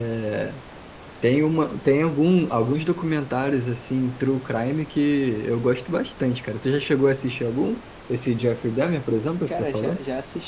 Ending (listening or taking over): taking over